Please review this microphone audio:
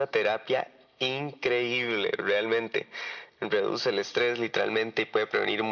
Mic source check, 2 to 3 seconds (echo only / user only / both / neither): echo only